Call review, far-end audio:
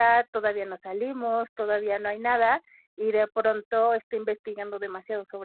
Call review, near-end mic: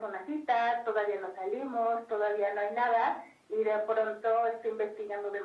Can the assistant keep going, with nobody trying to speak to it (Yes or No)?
Yes